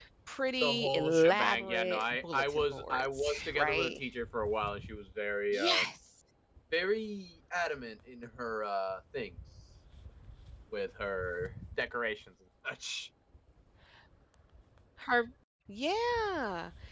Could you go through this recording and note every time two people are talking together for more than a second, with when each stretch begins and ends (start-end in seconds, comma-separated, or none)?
0.6-4.0